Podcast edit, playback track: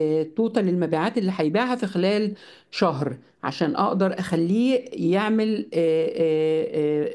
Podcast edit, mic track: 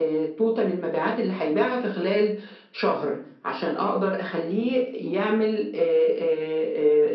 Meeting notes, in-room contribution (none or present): none